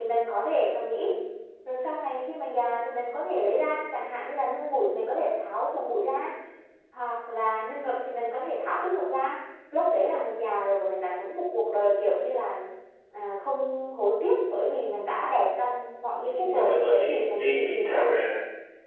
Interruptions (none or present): present